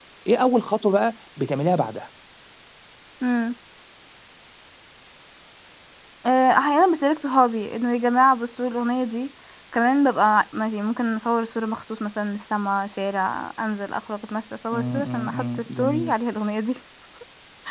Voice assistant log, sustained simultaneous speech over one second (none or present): present